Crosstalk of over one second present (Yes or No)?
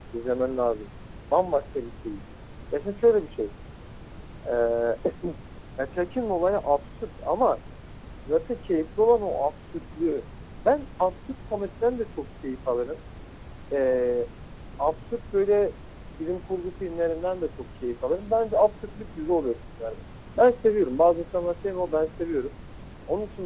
No